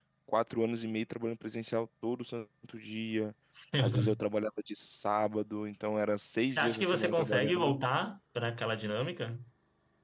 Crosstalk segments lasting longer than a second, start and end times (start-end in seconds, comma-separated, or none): 6.5-7.8